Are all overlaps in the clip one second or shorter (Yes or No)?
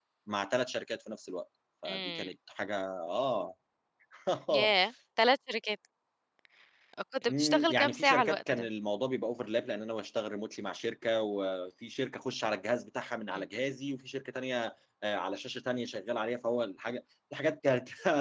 No